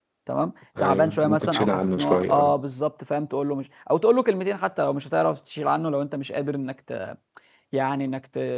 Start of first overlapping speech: 0.8 s

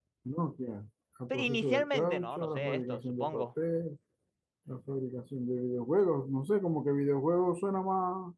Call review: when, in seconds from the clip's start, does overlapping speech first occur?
1.4 s

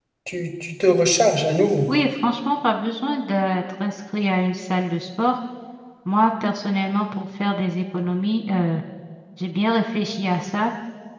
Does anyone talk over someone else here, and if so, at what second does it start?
none

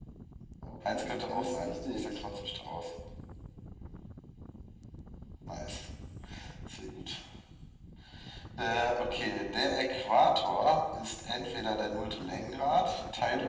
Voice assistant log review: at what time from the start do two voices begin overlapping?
0.9 s

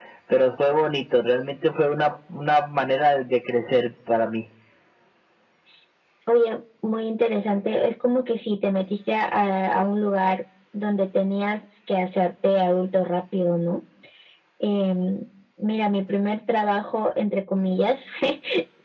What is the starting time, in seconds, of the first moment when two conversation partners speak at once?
none

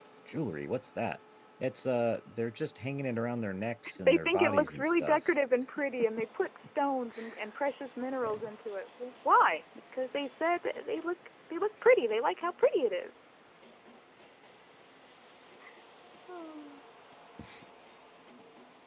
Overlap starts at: 4.0 s

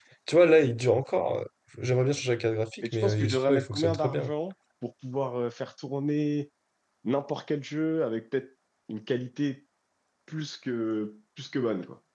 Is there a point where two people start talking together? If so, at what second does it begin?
2.8 s

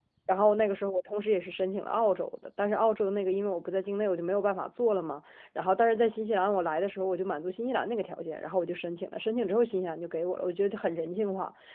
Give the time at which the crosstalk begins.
none

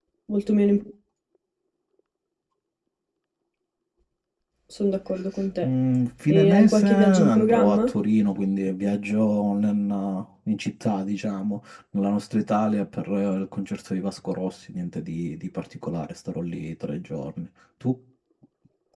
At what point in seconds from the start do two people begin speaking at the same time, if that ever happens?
6.3 s

